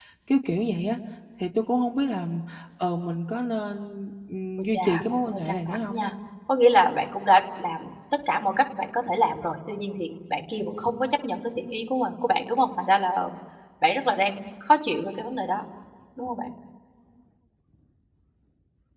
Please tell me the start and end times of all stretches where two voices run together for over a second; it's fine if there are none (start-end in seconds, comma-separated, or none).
4.6-6.1